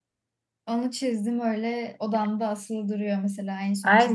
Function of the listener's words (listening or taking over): taking over